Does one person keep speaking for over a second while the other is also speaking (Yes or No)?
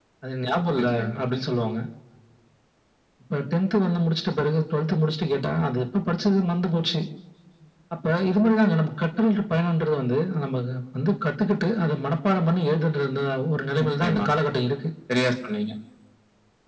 No